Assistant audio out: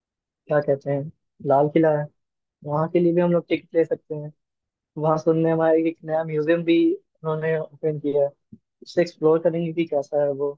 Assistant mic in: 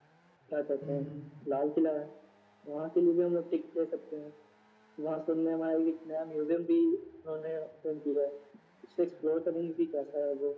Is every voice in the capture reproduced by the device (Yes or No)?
No